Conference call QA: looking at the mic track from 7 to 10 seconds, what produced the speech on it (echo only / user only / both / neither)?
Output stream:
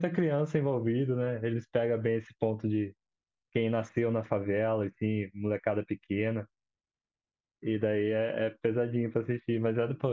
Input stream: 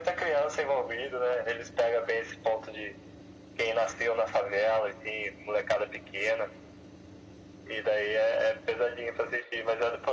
echo only